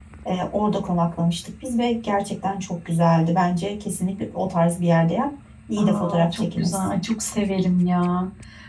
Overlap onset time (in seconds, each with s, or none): 5.8 s